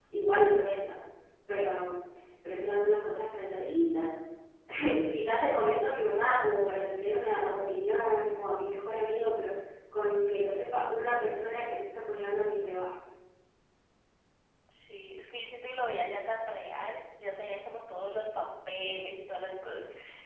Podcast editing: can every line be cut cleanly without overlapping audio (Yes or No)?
Yes